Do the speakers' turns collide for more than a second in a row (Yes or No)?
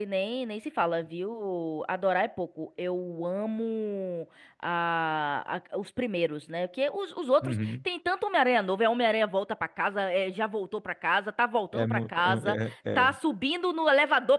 Yes